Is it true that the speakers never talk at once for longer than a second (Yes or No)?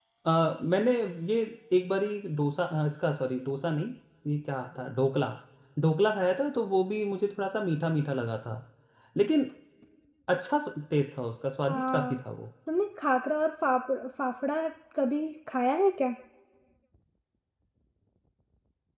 Yes